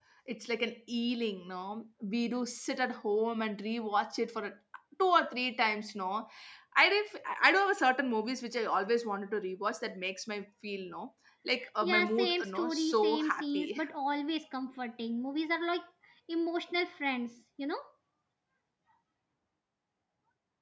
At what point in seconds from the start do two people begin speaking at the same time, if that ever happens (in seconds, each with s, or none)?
11.6 s